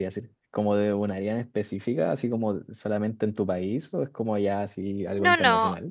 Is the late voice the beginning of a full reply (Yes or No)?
Yes